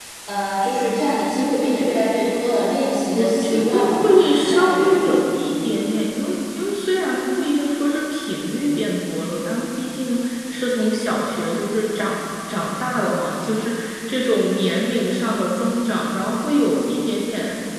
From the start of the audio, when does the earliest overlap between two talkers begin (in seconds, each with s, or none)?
3.1 s